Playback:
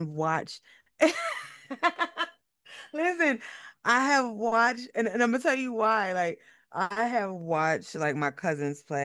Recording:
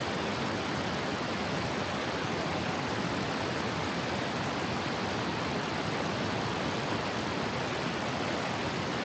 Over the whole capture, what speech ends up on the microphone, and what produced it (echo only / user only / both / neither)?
neither